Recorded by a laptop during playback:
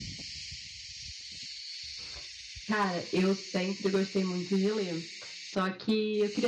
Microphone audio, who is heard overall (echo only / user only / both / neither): user only